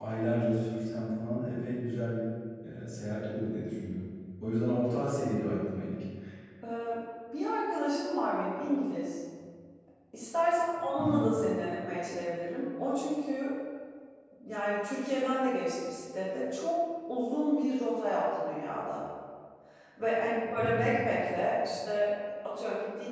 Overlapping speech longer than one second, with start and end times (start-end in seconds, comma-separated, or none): none